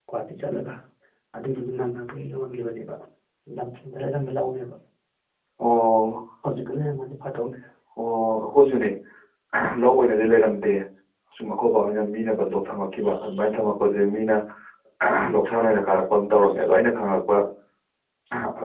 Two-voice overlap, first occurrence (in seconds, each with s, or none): none